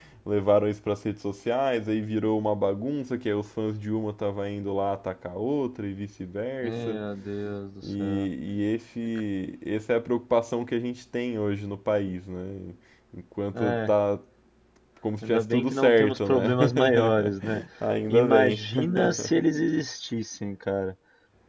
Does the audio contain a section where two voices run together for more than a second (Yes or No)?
Yes